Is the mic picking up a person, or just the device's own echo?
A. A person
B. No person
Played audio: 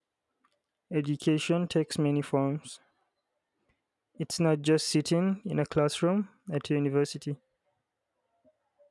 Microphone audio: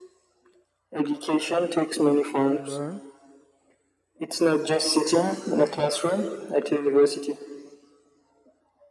A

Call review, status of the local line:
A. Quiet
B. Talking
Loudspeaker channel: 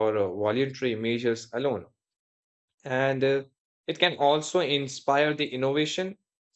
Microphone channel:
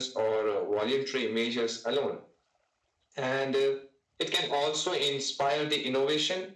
A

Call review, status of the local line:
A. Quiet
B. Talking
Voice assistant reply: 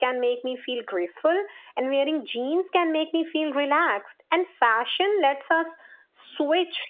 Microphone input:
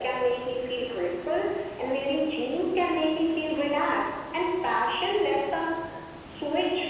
A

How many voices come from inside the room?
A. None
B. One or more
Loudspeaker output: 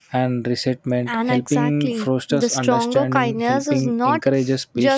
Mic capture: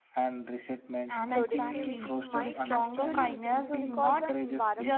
B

